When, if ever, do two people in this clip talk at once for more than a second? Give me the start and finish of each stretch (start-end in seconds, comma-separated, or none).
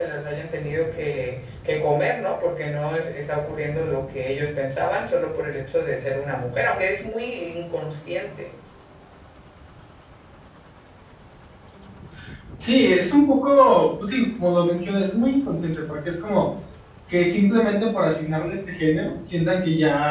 none